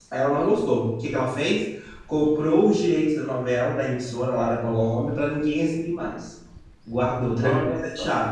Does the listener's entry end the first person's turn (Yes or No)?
No